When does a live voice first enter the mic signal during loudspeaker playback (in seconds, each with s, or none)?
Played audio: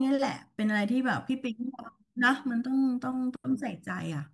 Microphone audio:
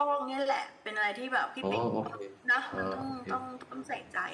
1.6 s